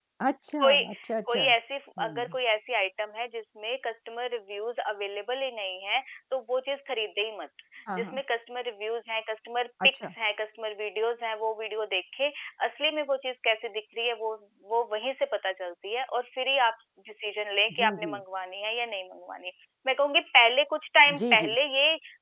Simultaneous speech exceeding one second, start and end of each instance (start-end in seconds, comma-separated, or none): none